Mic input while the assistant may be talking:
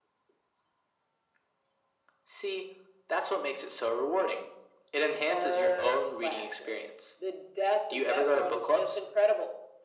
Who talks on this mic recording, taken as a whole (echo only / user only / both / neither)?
echo only